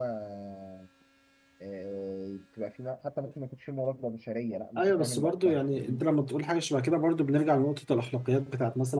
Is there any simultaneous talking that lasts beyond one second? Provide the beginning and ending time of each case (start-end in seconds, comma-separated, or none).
4.8-6.0